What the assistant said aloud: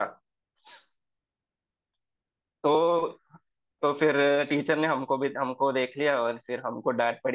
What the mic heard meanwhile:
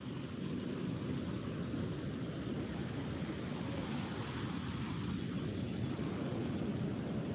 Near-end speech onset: none

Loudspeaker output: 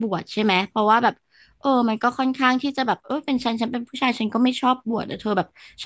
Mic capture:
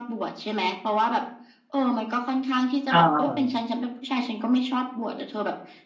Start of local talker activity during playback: 2.9 s

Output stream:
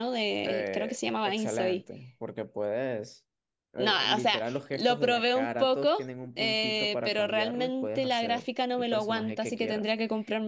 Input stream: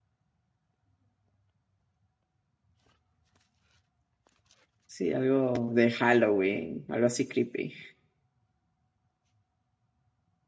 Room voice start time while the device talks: 4.8 s

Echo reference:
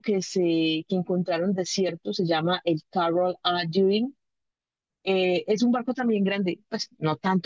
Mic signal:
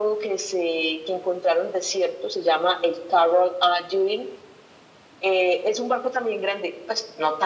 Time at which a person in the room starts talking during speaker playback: none

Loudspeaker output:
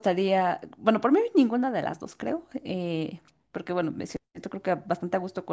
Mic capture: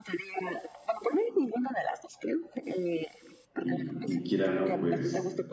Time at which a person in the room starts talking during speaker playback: 3.6 s

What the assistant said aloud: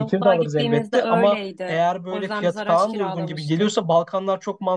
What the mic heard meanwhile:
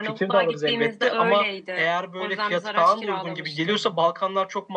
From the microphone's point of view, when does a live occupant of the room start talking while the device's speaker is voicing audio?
none

